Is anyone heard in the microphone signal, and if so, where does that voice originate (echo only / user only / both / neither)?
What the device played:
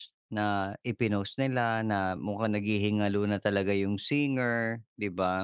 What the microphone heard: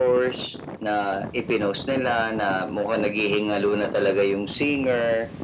echo only